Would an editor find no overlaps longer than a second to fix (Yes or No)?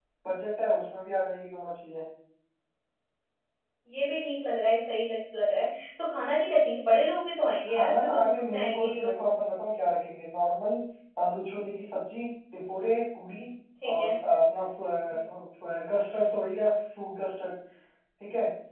No